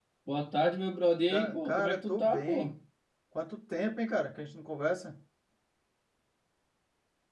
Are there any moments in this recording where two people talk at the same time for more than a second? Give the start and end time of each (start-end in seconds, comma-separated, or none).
1.3-2.7